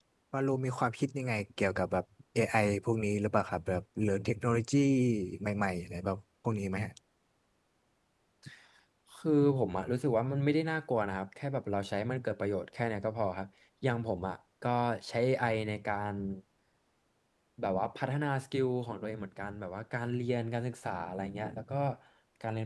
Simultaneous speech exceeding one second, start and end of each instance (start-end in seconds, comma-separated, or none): none